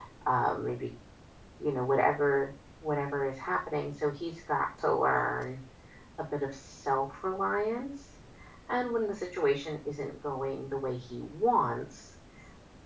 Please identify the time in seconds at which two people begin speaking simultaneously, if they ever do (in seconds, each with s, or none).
none